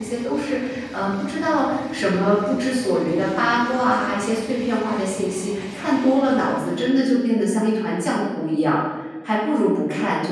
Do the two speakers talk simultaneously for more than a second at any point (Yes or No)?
No